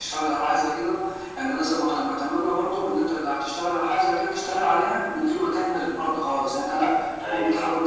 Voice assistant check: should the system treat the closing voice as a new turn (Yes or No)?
No